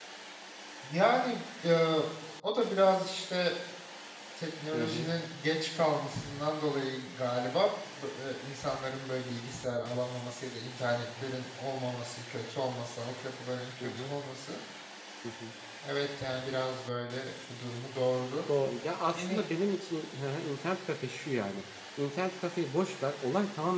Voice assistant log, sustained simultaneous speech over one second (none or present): none